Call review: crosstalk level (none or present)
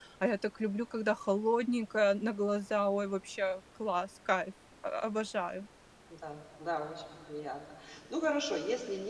none